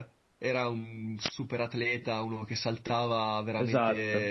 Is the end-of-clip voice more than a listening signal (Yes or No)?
No